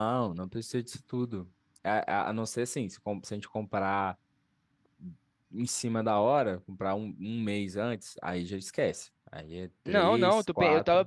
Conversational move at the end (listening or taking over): taking over